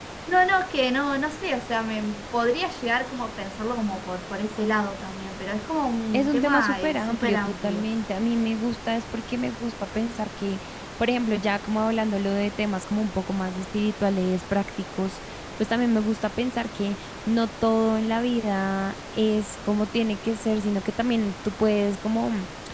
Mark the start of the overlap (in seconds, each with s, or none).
6.1 s